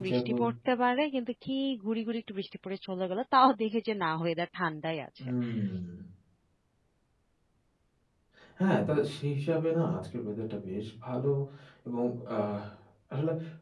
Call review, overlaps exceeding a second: none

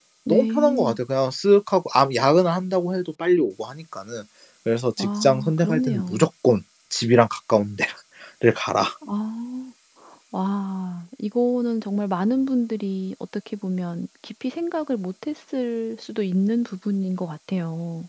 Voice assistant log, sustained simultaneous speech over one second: present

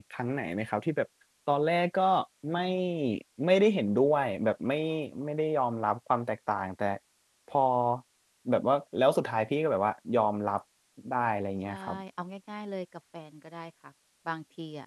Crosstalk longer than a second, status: none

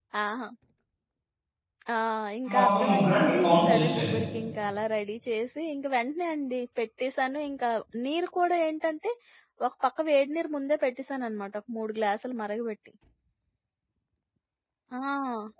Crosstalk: present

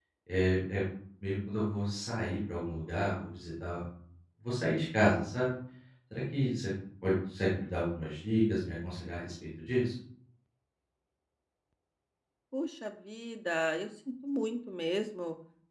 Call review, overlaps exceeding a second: none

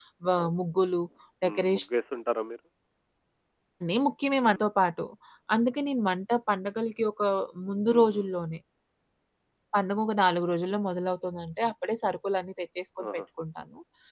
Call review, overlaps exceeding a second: none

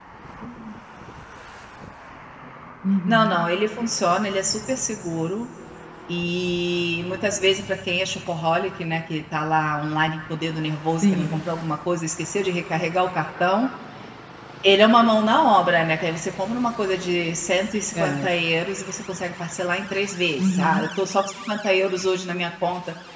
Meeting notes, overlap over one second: none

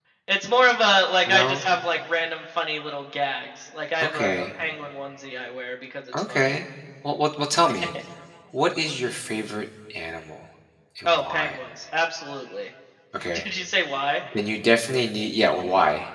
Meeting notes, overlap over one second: none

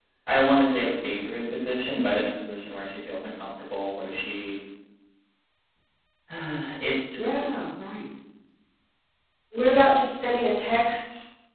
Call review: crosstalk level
none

